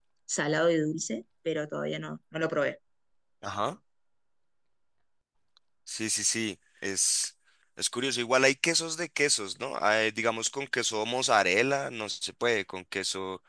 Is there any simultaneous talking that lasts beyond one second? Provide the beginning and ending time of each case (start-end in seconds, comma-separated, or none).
none